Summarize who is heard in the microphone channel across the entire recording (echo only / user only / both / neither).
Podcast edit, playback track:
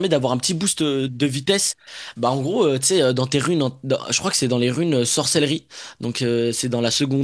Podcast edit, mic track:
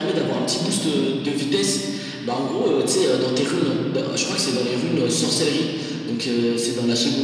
echo only